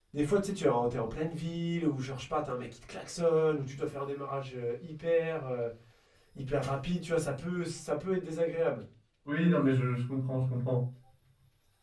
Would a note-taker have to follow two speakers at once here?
No

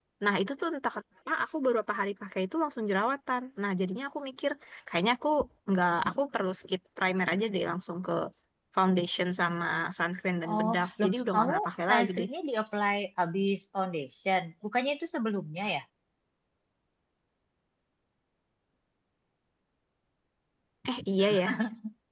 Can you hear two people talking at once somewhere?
Yes, from 10.5 s

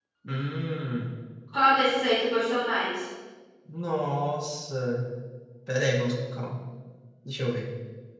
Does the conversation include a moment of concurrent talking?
No

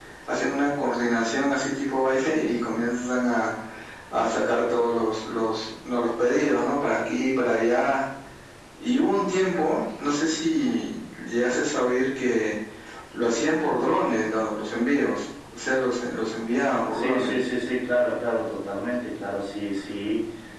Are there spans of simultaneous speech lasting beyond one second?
No

